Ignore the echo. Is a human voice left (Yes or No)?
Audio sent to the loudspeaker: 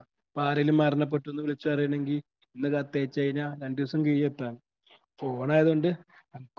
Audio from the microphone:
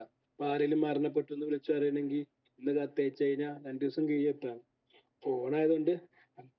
No